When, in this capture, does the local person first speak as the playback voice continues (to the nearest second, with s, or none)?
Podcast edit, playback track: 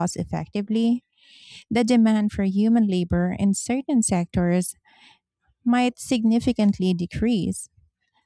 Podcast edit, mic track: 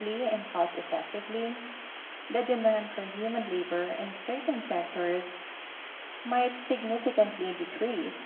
none